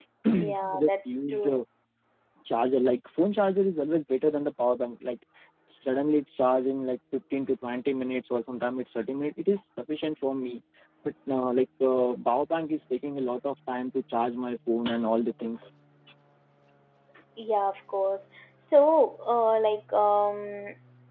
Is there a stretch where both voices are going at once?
Yes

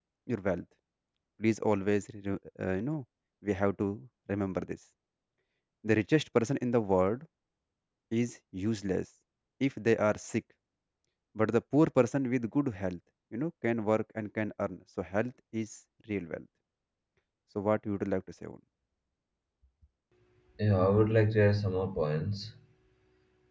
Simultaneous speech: No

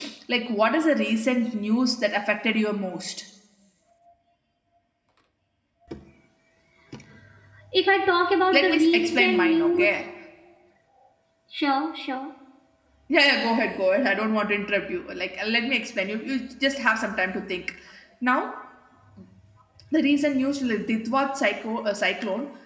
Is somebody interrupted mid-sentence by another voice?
Yes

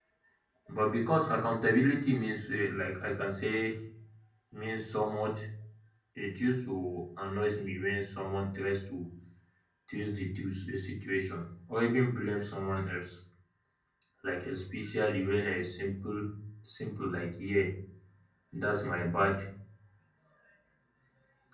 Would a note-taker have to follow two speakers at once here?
No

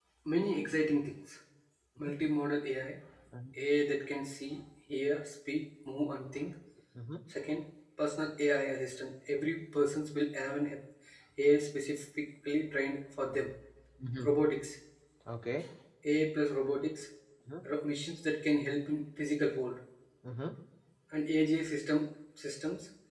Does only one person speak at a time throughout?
Yes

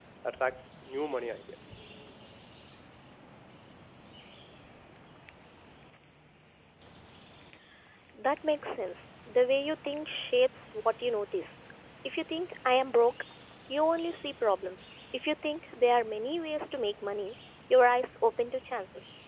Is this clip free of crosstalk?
Yes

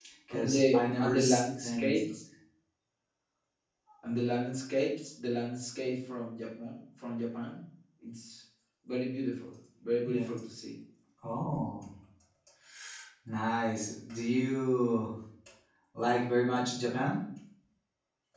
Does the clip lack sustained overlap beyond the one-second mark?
No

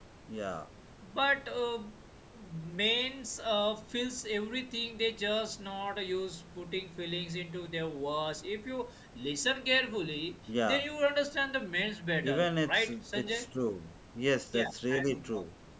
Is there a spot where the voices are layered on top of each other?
Yes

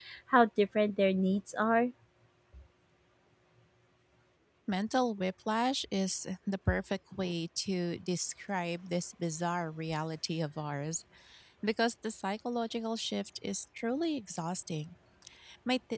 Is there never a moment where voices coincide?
Yes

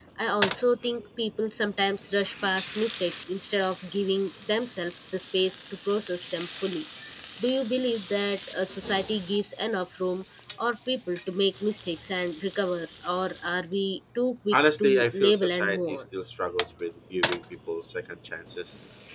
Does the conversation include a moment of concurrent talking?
Yes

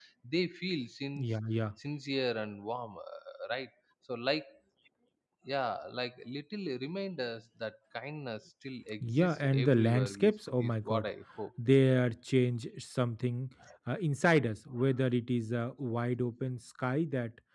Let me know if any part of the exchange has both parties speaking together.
Yes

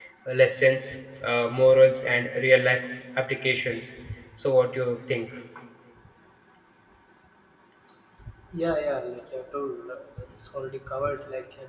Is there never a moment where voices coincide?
Yes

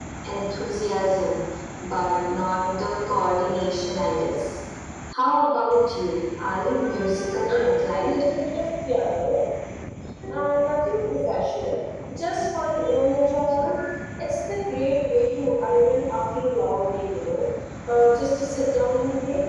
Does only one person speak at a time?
No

